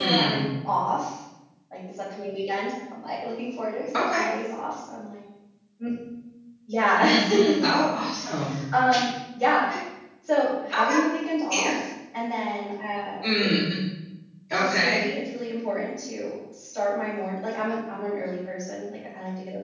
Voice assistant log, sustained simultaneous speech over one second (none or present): none